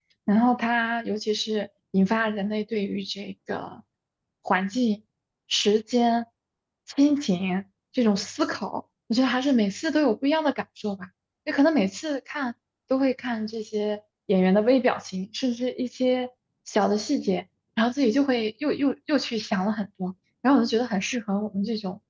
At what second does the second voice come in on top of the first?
none

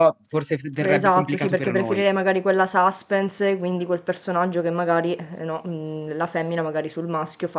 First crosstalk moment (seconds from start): 1 s

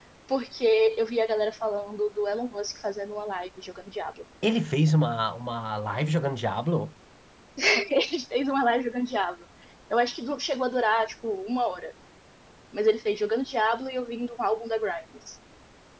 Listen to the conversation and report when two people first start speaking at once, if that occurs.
none

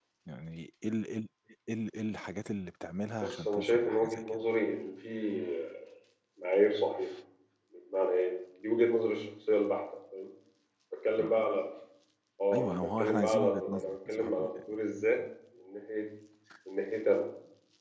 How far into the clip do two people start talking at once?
3 s

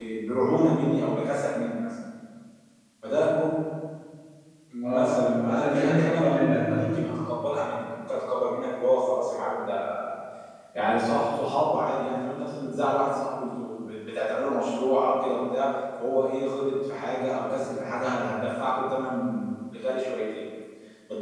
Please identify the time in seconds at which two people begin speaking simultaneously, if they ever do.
5 s

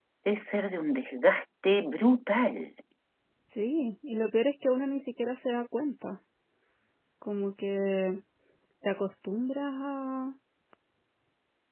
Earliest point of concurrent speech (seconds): none

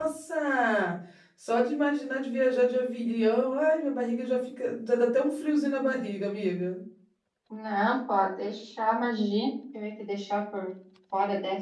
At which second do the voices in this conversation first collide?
none

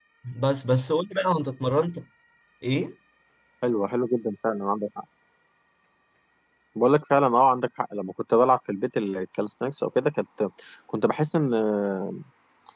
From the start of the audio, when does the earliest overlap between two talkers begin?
none

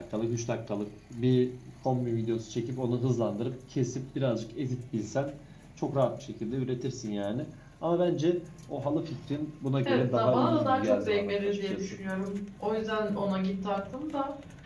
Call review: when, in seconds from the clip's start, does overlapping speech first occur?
10 s

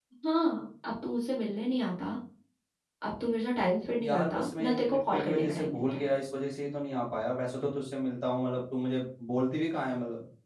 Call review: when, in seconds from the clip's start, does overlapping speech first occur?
4 s

